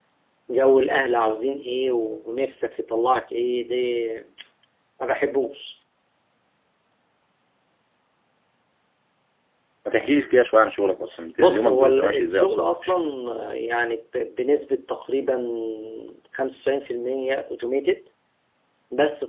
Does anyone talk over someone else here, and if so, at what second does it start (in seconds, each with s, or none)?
11.4 s